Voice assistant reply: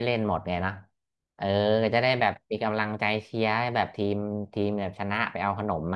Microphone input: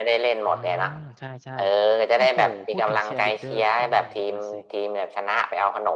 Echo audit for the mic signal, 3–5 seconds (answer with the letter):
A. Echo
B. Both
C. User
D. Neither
B